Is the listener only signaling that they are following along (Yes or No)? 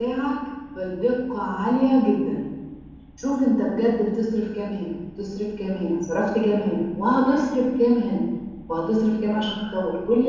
Yes